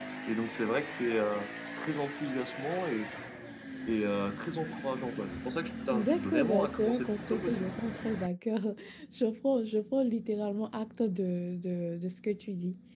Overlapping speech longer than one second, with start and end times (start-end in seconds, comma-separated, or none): 5.9-7.7